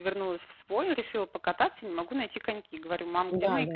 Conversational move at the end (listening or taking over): listening